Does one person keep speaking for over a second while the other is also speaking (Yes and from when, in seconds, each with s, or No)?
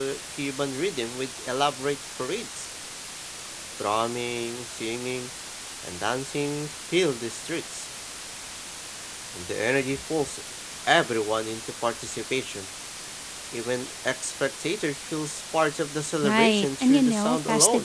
Yes, from 16.2 s